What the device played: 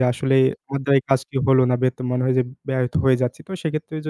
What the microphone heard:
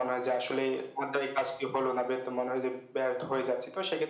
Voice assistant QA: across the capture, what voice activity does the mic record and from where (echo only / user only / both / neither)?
echo only